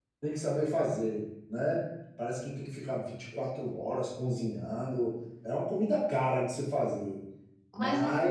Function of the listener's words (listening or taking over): taking over